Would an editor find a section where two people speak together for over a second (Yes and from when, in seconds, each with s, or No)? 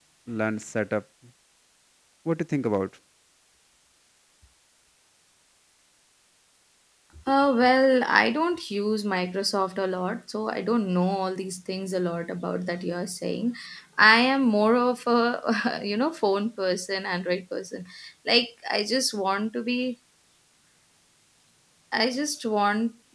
No